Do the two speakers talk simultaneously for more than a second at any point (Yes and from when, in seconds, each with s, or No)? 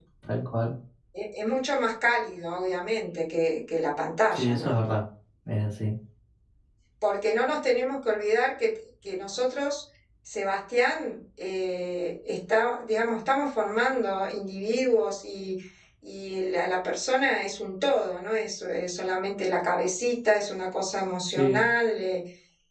No